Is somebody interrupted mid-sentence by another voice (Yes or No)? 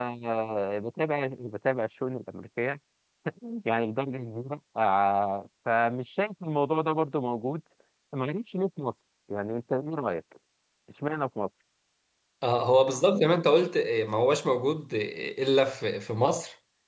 No